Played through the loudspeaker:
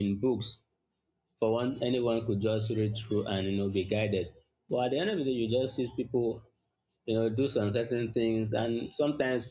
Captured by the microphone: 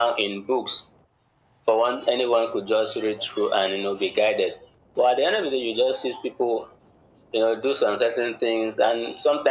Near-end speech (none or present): none